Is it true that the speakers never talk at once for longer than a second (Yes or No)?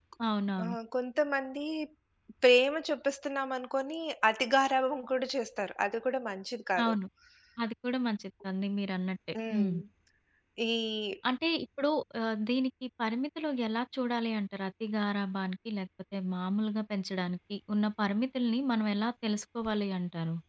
Yes